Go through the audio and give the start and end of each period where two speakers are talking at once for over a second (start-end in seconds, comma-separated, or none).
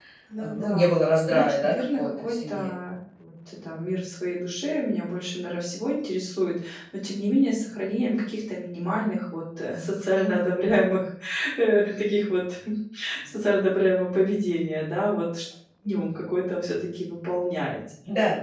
1.3-2.7